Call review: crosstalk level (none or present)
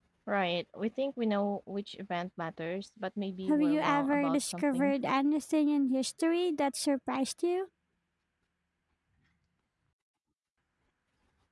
present